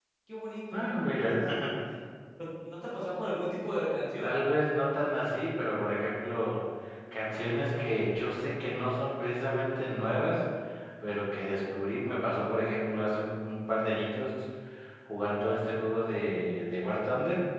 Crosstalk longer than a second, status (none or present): none